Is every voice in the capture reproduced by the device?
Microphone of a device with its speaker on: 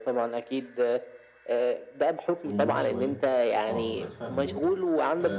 No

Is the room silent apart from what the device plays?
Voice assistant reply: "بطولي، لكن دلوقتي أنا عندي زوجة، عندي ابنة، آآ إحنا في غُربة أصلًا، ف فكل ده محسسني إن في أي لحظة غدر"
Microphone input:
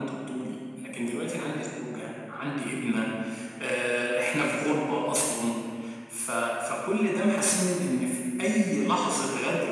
Yes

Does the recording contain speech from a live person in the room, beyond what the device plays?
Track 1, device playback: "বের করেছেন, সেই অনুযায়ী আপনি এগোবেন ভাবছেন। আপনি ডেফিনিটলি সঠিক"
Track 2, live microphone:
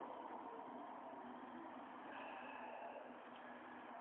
No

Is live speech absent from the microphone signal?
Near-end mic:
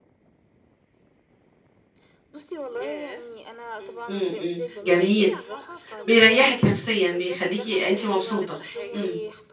No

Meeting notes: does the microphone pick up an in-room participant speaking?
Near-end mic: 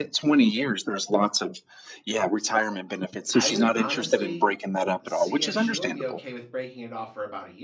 Yes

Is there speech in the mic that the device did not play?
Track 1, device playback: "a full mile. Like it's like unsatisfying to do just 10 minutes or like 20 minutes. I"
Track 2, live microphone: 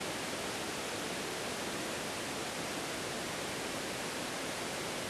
No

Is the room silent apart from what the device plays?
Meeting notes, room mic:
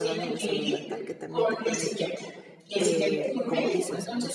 No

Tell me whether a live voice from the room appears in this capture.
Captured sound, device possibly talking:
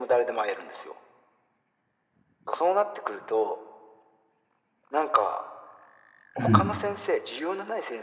Yes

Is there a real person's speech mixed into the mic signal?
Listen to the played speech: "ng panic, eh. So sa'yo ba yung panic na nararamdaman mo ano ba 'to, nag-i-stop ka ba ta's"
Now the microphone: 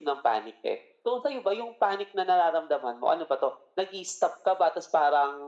No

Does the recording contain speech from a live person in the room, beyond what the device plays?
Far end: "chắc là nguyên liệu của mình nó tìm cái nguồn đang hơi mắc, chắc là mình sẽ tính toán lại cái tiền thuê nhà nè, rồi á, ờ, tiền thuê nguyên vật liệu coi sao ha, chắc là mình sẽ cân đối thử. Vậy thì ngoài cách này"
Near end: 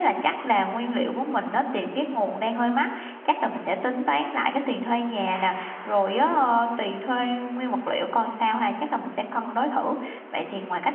No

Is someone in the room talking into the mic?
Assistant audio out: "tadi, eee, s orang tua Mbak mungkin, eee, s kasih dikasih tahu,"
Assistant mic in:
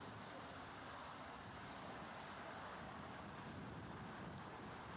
No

